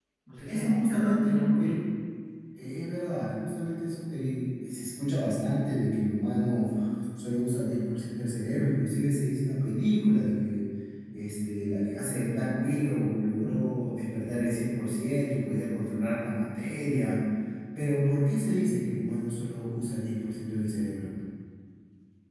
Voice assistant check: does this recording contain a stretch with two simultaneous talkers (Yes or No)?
Yes